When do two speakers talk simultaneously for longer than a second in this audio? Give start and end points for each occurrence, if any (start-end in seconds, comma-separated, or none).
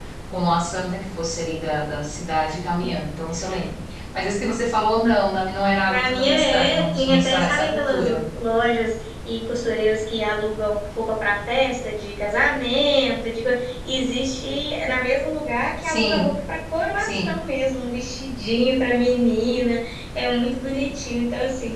5.9-8.2